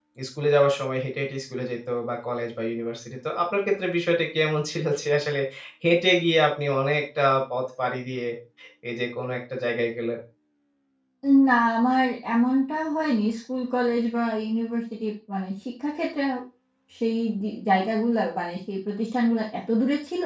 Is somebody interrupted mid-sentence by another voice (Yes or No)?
No